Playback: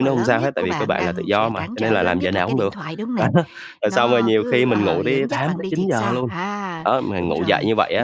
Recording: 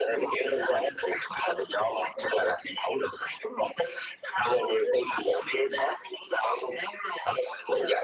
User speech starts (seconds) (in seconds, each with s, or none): none